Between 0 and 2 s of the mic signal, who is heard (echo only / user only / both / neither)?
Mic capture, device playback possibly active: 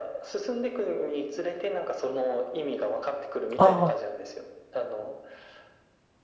echo only